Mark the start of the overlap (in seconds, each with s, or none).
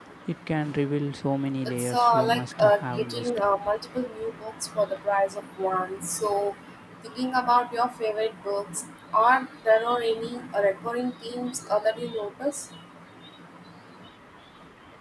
1.6 s